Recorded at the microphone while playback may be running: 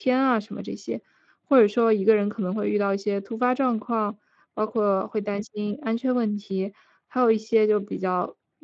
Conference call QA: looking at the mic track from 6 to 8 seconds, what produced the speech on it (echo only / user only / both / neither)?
user only